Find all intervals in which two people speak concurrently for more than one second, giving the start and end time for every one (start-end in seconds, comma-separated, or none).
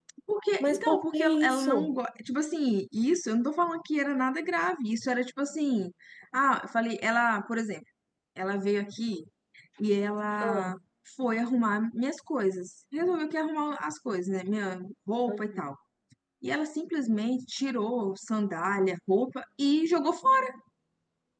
0.6-1.9